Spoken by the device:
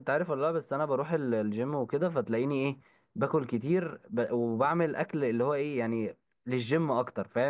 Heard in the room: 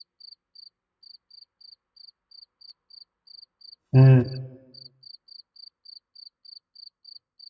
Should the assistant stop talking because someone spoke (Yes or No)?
Yes